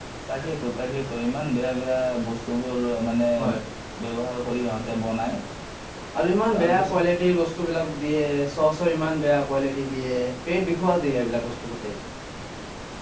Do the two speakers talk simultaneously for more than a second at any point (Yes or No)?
No